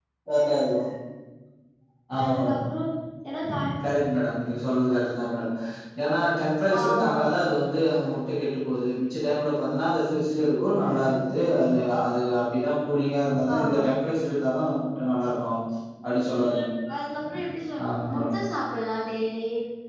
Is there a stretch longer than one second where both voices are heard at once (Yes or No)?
No